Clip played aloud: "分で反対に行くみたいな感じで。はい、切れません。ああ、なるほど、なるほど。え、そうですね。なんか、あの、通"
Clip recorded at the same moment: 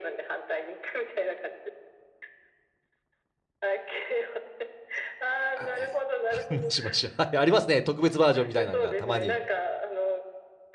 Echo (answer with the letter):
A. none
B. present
B